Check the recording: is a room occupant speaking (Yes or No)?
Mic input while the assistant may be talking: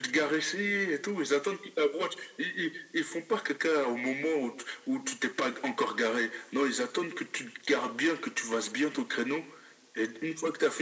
No